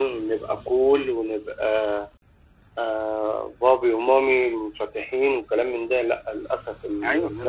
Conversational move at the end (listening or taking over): taking over